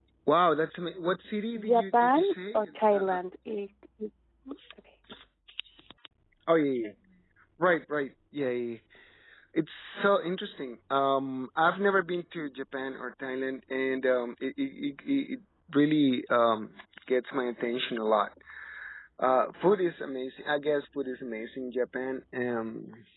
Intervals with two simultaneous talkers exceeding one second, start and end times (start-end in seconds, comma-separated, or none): 1.6-3.0